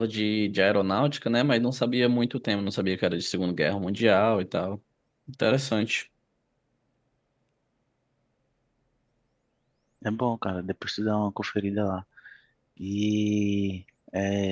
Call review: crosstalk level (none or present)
none